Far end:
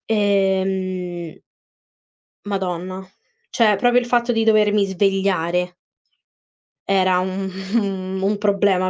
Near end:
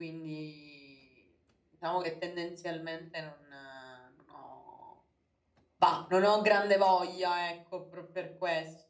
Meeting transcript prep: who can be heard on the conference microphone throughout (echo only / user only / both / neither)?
user only